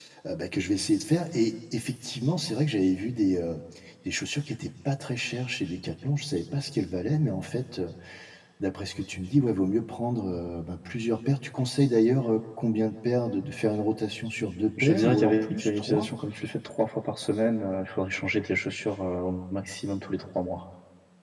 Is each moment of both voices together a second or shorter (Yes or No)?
No